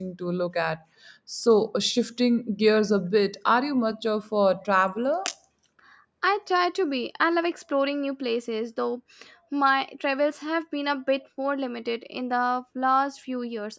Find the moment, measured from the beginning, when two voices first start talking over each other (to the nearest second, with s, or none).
none